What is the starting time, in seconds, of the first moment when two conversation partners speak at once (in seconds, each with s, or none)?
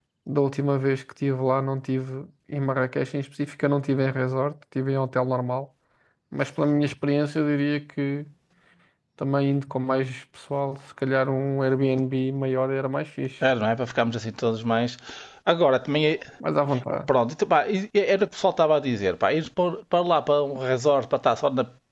none